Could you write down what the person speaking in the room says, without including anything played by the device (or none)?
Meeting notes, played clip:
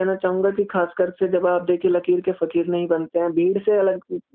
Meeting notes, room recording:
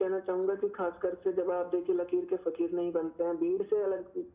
none